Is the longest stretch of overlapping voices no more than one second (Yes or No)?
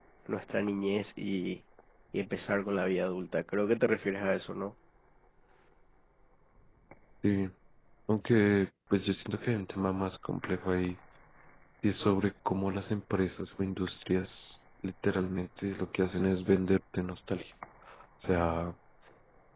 Yes